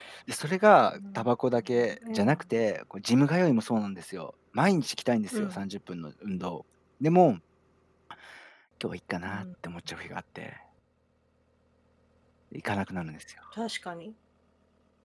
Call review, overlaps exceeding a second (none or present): none